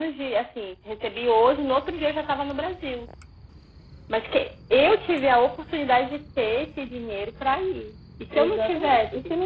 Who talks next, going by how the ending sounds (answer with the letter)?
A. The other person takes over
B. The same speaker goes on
A